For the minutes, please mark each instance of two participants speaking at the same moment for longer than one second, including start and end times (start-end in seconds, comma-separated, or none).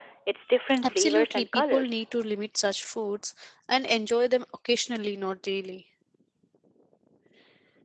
0.8-2.0